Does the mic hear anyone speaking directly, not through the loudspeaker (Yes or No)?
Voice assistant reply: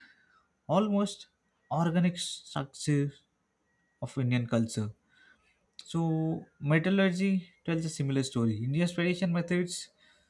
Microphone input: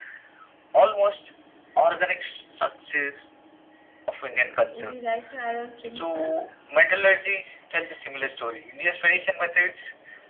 Yes